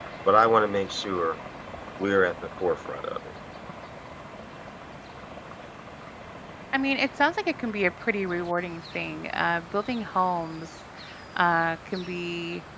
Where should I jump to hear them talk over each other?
none

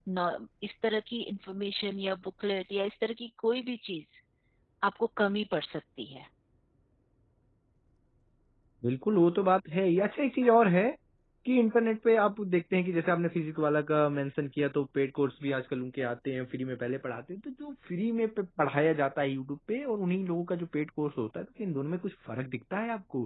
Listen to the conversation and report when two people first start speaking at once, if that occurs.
none

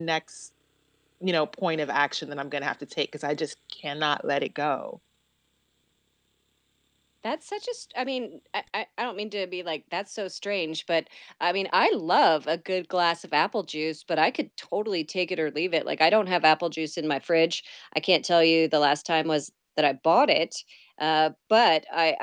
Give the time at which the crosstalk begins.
none

